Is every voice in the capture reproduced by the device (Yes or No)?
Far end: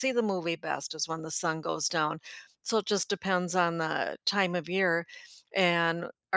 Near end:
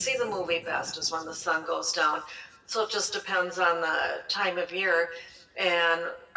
Yes